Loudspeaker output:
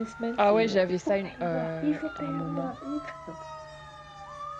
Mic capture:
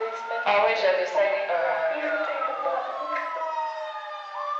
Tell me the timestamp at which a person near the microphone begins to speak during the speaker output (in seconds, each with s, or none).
none